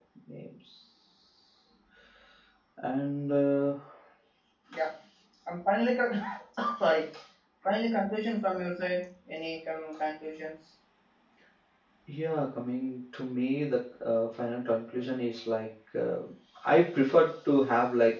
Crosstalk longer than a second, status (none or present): none